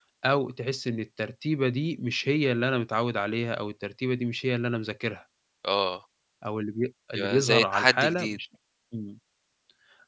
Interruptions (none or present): present